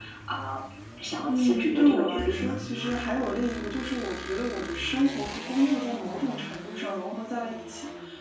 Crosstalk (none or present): present